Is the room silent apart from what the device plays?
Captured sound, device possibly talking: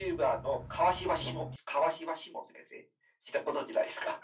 Yes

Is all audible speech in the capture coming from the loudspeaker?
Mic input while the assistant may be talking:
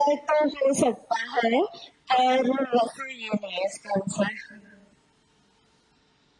Yes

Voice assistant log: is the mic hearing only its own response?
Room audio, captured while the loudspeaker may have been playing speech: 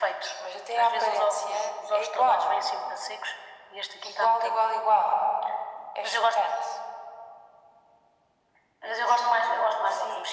Yes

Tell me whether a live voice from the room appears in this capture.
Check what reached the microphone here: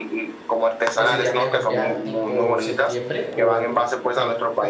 Yes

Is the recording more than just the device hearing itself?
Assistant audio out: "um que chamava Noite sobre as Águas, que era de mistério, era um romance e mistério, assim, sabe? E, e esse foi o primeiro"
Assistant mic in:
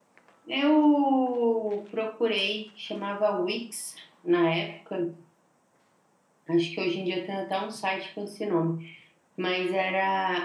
Yes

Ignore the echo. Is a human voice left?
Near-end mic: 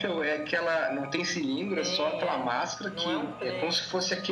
Yes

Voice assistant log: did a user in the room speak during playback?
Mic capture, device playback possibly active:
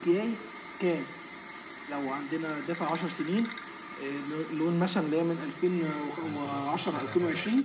Yes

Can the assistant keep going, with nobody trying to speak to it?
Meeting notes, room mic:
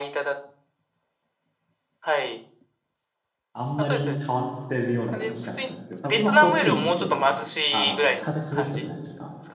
No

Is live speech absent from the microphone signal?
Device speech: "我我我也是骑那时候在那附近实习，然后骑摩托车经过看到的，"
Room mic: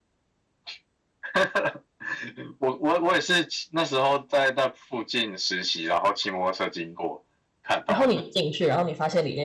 No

